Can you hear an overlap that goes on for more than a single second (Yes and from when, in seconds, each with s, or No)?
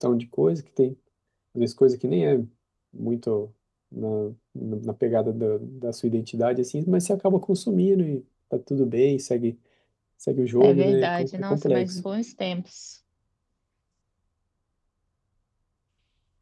Yes, from 10.6 s